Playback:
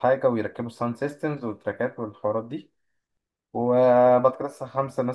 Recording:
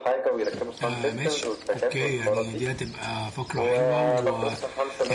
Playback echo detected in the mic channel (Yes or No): Yes